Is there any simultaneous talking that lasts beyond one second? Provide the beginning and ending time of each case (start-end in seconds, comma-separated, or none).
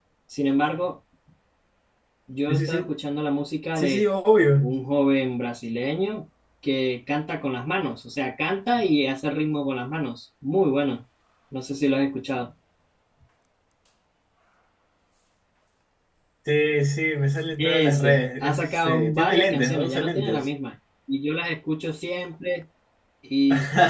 17.6-20.5